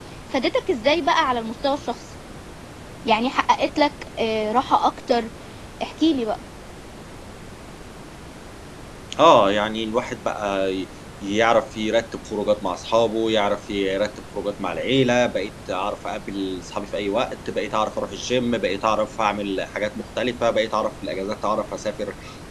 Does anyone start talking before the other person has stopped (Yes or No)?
No